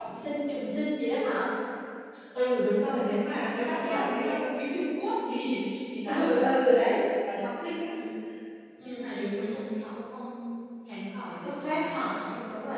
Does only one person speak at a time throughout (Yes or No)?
No